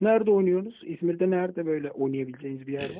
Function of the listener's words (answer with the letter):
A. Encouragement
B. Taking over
B